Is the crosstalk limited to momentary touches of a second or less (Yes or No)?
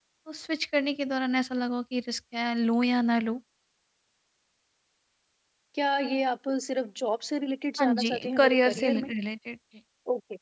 No